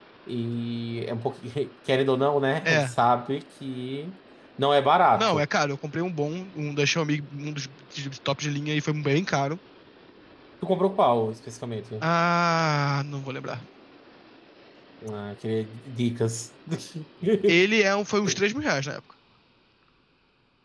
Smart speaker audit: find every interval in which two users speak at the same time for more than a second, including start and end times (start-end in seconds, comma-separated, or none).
none